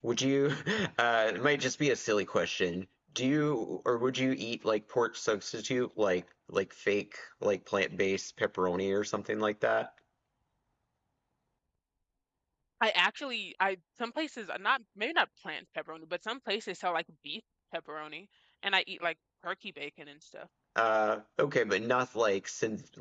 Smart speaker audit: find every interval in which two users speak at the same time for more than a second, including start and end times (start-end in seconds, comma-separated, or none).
none